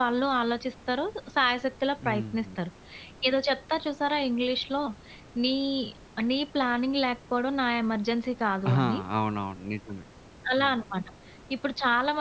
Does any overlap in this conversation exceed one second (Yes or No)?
No